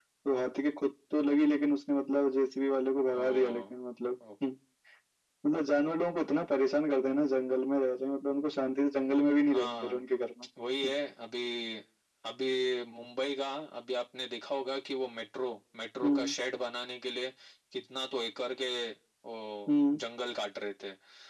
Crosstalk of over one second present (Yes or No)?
No